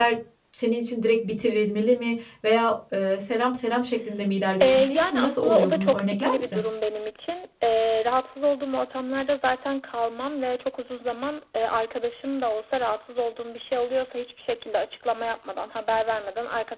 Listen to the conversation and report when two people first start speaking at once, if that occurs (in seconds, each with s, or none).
4.6 s